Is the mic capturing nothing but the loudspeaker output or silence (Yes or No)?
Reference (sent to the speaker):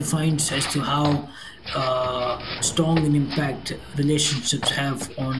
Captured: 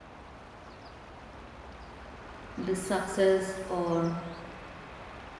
No